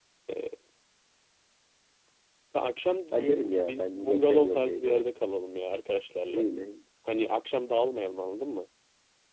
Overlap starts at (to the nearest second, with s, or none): 3 s